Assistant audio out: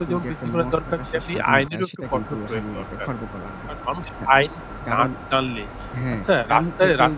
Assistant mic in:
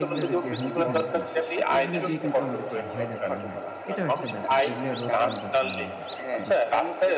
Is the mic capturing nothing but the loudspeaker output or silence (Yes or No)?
No